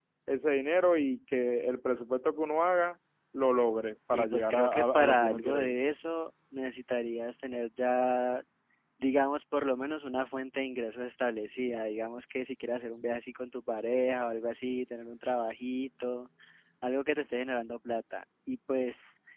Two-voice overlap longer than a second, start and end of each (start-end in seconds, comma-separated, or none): 4.1-5.7